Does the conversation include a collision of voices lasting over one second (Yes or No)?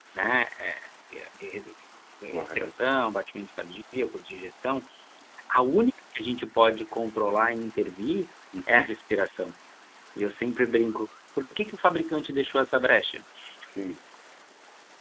No